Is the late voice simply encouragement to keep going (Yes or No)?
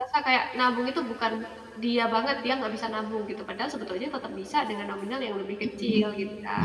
No